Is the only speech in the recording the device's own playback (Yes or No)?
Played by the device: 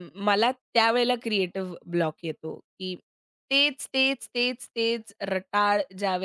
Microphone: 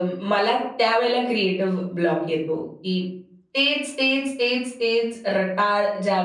Yes